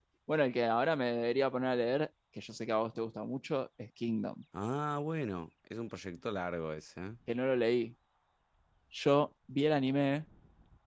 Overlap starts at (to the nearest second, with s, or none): none